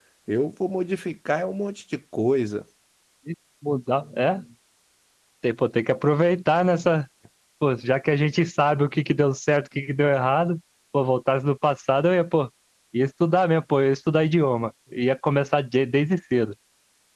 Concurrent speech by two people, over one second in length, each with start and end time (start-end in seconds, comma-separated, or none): none